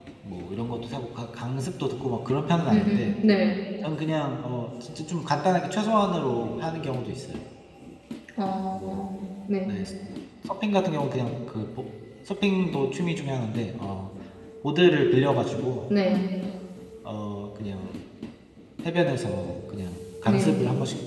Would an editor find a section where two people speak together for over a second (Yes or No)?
No